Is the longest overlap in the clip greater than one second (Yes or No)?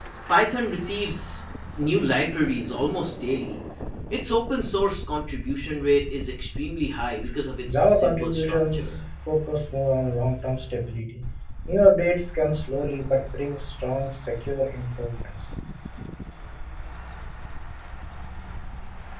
Yes